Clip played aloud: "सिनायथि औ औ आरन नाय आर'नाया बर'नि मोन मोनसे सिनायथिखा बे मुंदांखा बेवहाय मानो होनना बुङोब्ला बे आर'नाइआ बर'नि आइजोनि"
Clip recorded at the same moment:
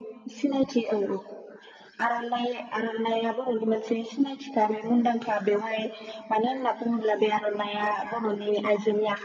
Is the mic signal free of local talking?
Yes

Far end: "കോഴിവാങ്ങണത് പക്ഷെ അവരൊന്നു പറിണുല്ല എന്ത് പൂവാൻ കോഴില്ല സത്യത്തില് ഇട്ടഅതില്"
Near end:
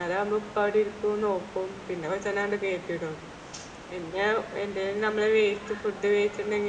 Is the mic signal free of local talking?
No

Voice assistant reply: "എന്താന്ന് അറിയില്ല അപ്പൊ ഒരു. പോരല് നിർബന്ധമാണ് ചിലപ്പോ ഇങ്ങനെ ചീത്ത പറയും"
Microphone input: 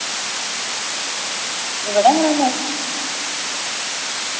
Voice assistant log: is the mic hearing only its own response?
No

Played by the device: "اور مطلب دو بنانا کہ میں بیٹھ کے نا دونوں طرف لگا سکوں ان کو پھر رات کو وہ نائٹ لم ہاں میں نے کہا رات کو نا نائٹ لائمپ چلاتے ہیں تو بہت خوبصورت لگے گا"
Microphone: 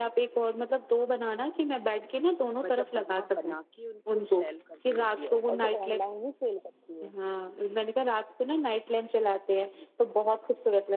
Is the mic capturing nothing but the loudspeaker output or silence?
No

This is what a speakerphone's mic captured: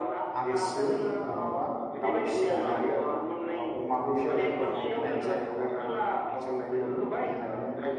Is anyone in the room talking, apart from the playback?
Yes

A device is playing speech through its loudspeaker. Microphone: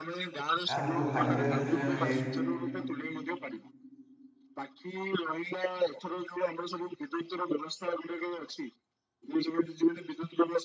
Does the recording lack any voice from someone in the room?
No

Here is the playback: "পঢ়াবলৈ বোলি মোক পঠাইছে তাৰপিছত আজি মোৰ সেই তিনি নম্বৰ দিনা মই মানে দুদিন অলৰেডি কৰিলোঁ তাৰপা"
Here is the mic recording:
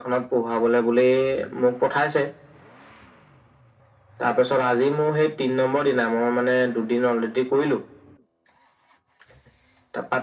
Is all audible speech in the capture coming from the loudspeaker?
Yes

